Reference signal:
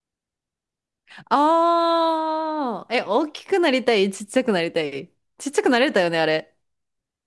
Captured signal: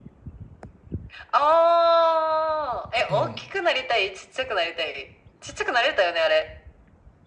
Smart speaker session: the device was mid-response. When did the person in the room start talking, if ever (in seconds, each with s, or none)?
3.1 s